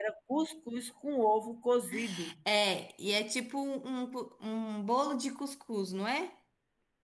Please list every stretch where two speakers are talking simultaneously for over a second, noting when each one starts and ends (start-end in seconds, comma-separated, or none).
none